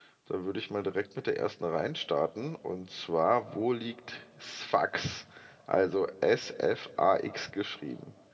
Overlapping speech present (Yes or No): No